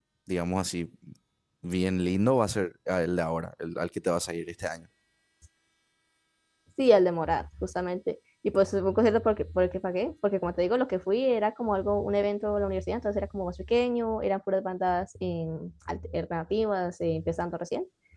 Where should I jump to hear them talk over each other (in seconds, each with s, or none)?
none